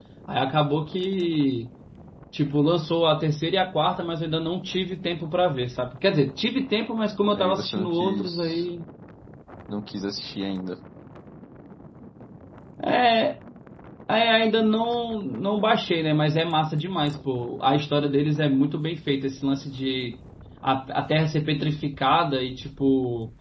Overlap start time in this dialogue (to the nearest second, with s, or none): 7 s